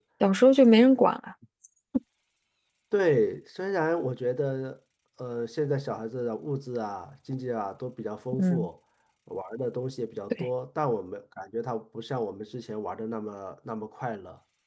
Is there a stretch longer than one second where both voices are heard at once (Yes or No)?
No